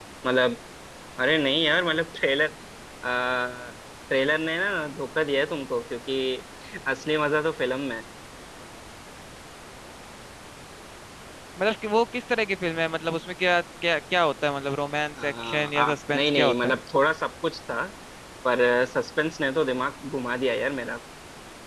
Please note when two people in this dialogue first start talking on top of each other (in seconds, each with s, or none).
15.2 s